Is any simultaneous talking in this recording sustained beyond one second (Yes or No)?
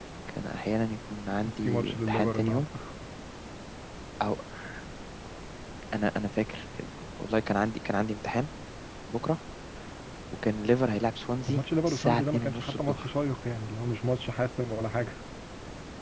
Yes